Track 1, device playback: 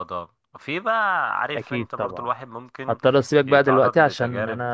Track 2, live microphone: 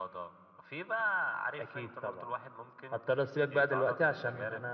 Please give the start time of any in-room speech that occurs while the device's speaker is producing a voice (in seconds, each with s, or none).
none